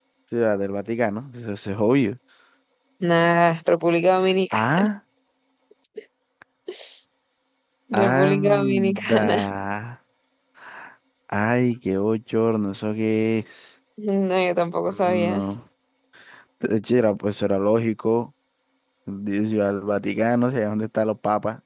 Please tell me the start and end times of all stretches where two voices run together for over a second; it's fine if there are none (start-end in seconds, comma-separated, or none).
7.9-9.5